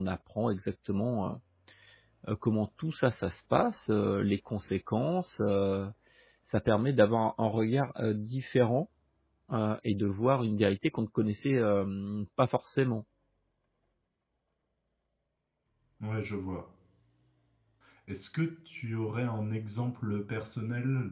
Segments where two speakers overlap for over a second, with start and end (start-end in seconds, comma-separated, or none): none